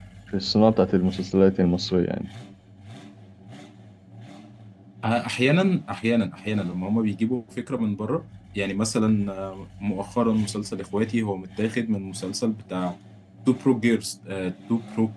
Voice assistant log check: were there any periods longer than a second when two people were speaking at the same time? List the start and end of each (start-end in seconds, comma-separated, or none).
none